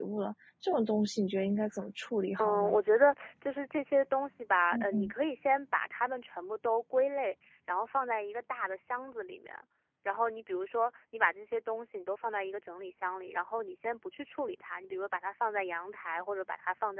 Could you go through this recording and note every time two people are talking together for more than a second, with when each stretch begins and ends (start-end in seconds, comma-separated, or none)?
none